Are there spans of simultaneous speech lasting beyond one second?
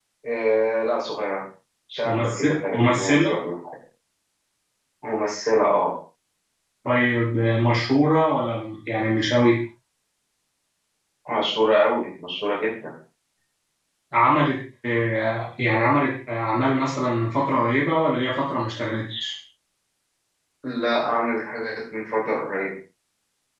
Yes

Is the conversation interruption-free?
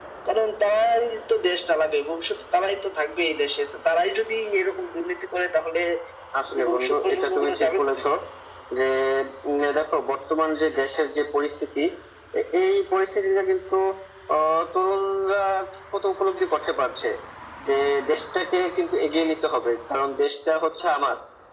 No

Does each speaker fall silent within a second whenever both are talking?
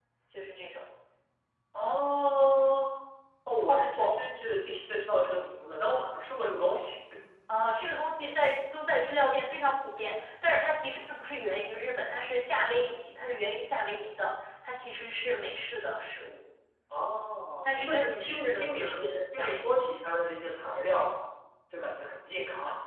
No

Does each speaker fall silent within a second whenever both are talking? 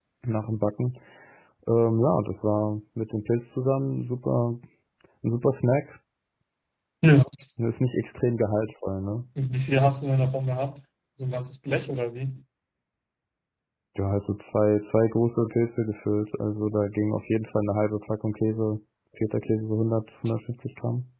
Yes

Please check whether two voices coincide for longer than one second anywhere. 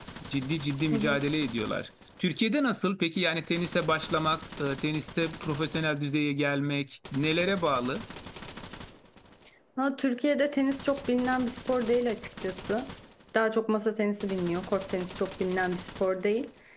No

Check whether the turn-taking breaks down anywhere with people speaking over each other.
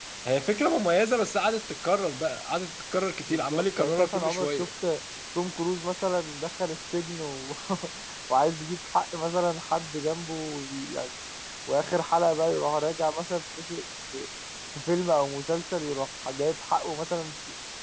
Yes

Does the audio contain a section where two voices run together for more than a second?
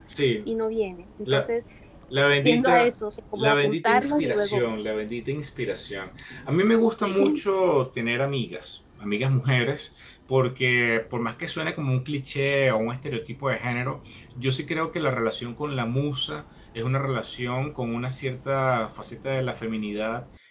Yes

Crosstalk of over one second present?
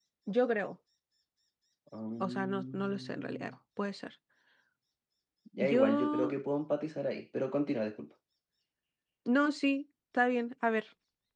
Yes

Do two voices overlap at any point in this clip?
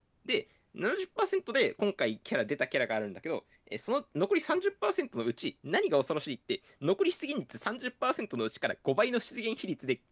No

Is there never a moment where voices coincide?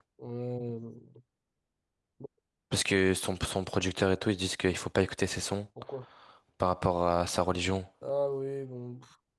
Yes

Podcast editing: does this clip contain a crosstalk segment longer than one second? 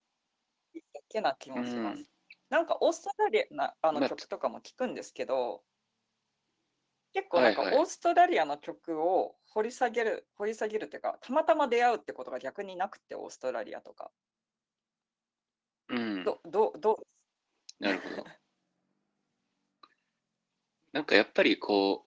No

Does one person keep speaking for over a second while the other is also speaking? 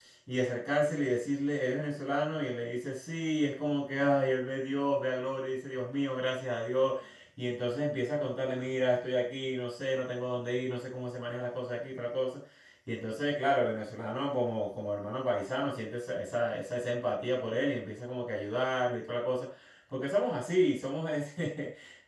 No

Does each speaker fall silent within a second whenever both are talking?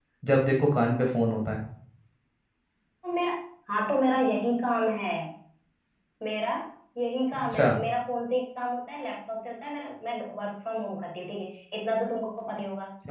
Yes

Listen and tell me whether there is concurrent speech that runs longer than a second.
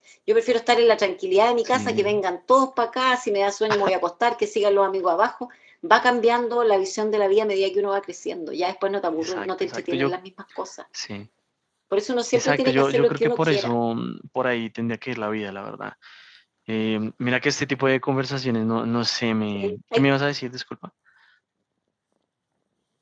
Yes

